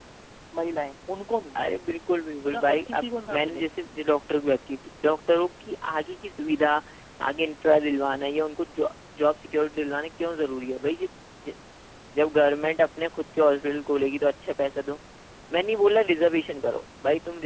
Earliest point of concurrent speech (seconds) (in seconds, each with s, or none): 2.5 s